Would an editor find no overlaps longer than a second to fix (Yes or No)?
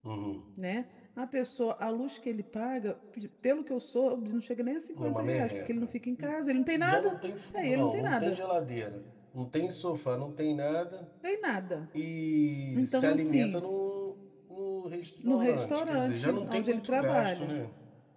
No